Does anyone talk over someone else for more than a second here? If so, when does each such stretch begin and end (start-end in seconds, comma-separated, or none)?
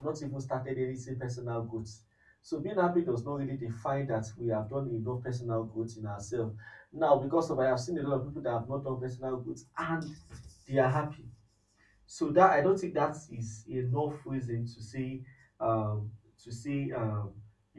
none